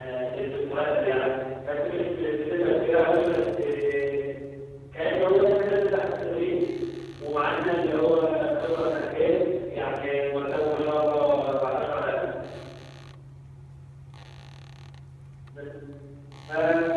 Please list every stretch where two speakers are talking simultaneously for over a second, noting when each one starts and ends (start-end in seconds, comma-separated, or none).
none